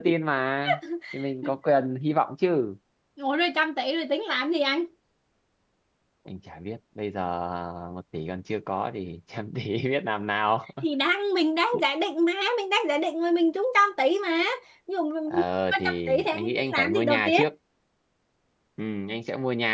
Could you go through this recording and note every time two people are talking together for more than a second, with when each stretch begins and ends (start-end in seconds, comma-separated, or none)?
15.7-17.4